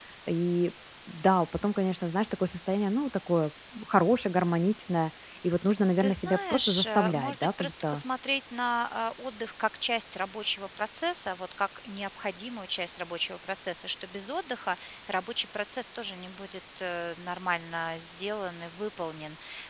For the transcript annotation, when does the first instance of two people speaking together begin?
6.0 s

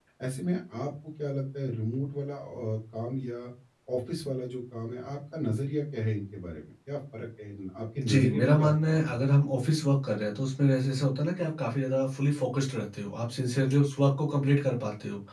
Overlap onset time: 8.0 s

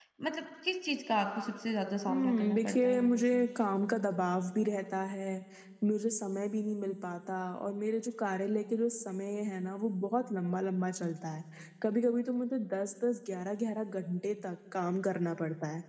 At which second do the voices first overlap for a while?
2.1 s

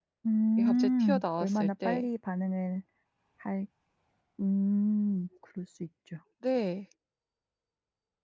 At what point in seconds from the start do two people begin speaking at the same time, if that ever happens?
0.6 s

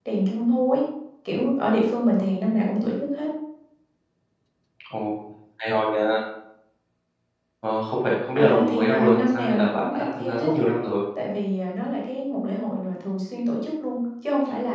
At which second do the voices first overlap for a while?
8.4 s

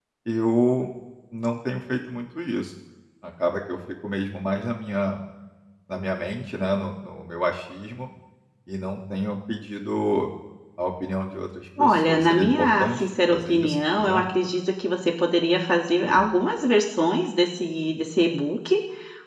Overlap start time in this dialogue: 11.8 s

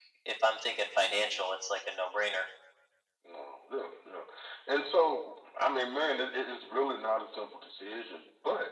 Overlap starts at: none

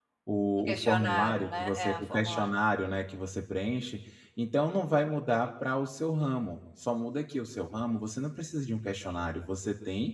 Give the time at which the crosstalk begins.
0.6 s

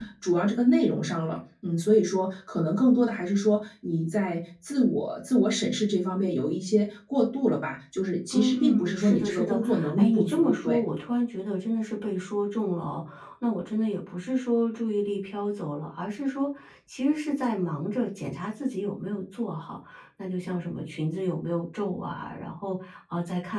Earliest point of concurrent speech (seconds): 8.3 s

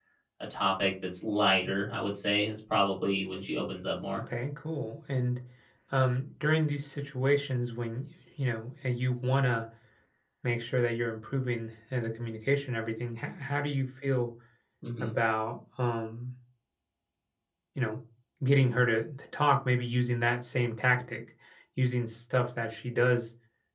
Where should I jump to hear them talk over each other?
none

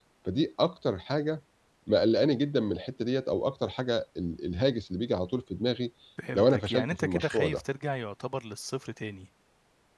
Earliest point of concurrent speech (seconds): 6.3 s

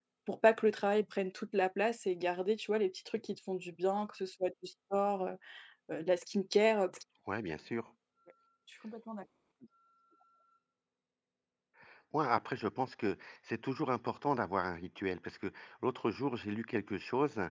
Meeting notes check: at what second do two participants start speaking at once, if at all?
none

